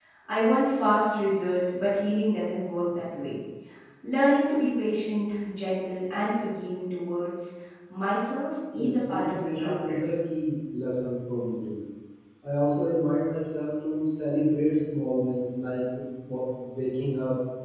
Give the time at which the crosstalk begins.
9 s

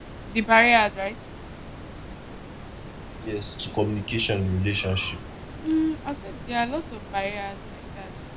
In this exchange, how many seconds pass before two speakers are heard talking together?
none

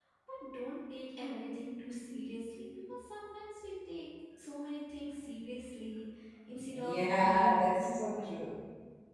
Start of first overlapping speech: 7 s

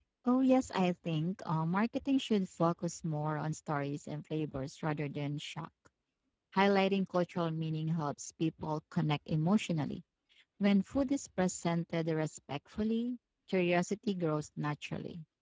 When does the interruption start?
none

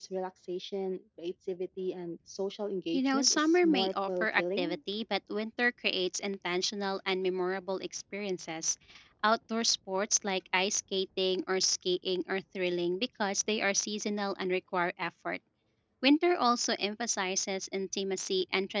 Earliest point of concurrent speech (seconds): 3 s

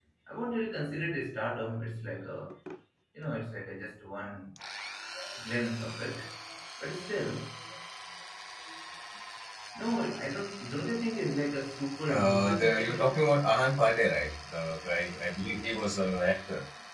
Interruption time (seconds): 12 s

